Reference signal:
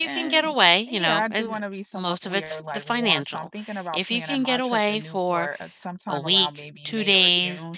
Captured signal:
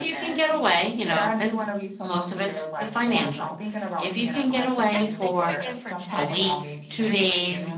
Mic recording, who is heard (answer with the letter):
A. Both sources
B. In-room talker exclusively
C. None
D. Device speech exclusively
A